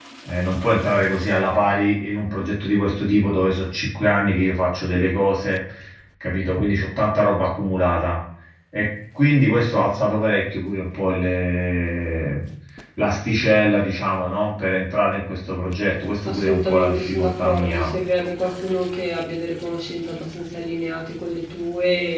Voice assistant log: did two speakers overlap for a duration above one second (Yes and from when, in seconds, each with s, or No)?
Yes, from 16.2 s